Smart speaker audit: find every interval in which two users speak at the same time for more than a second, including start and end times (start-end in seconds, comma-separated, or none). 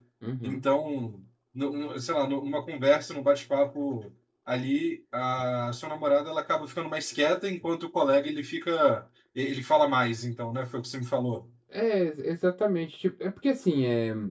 none